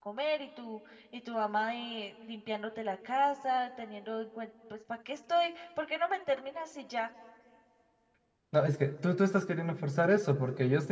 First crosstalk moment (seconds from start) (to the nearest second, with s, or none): none